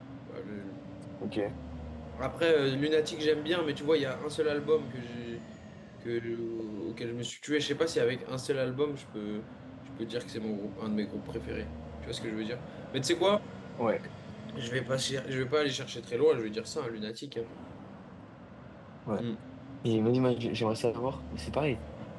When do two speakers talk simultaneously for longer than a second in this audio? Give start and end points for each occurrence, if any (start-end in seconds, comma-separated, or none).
none